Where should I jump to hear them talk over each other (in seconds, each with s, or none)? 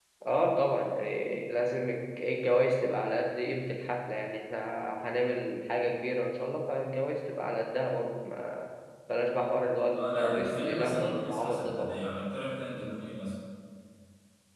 9.9 s